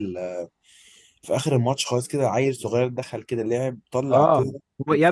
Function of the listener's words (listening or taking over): taking over